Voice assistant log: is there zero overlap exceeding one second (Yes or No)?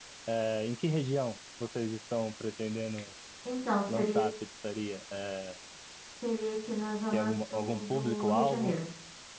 No